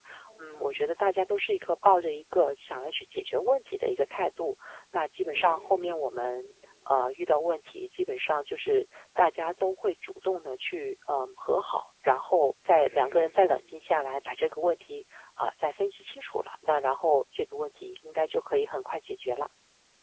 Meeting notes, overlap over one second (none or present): none